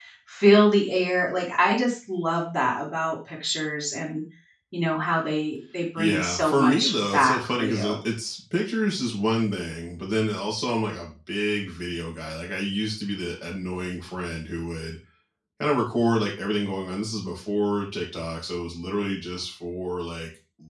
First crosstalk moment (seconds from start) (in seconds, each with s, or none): 6.0 s